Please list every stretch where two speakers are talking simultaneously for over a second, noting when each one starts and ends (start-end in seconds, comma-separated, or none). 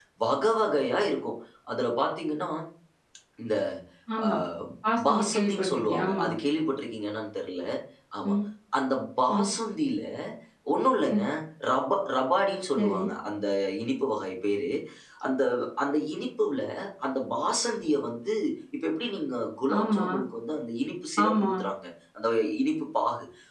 5.1-6.3